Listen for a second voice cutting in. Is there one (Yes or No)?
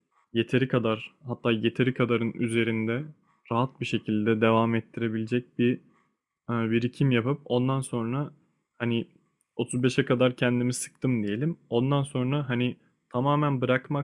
No